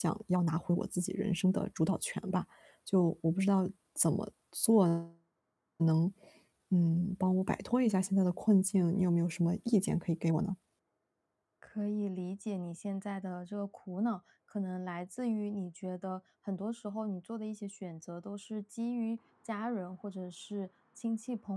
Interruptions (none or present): none